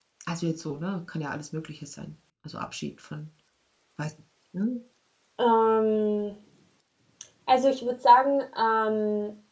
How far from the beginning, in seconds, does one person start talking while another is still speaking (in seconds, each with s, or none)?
none